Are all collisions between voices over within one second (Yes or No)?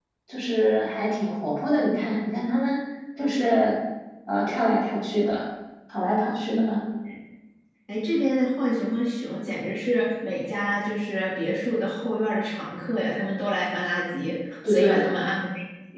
Yes